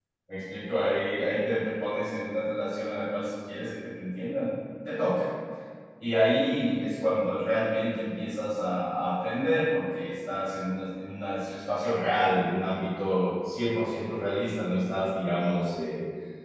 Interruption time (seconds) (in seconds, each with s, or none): none